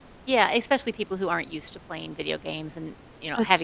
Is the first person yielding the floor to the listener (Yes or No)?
Yes